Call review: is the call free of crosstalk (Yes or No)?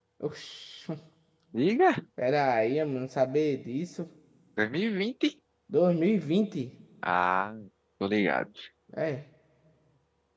Yes